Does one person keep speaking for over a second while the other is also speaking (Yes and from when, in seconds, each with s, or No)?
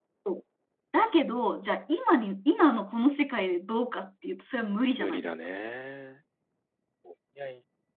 No